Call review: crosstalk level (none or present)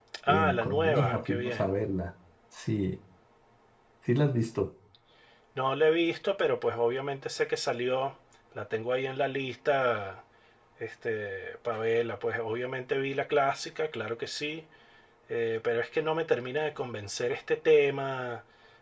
present